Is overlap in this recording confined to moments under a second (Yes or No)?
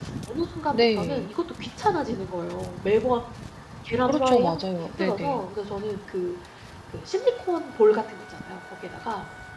No